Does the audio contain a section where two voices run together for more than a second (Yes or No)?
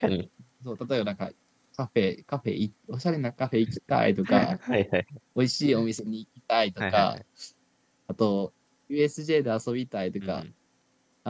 No